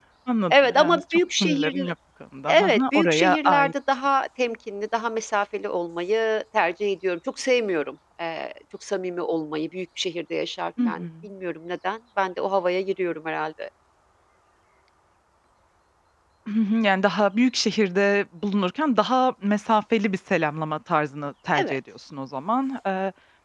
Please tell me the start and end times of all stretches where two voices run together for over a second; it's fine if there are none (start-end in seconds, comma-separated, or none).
0.5-1.9, 2.5-3.7